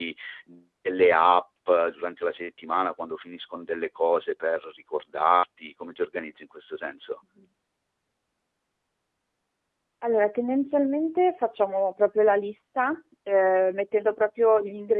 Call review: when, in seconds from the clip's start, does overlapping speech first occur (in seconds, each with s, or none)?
none